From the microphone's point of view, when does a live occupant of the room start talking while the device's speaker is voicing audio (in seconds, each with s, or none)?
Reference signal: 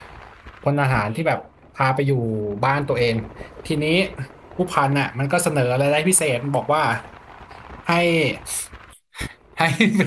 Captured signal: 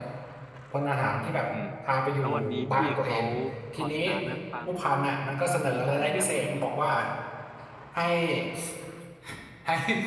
1.5 s